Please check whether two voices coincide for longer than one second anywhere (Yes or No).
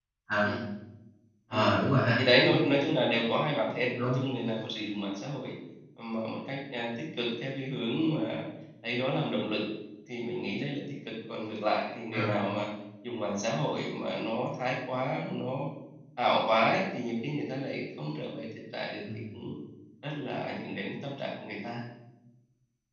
No